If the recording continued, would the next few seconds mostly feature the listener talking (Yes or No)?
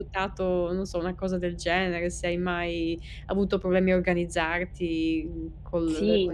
Yes